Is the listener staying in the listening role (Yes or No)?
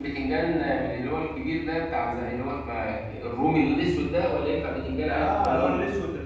No